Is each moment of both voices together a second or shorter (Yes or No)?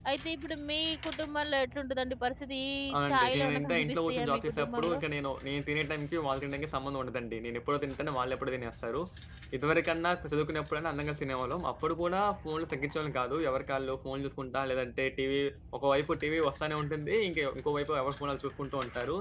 No